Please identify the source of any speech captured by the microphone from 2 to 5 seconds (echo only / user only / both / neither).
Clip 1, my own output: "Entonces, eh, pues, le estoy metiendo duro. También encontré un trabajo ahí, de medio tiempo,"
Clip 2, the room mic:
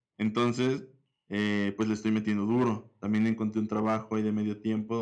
echo only